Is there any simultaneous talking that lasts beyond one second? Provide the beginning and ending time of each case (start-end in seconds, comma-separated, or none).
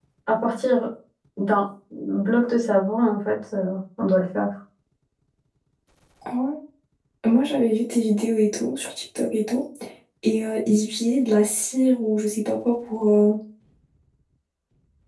none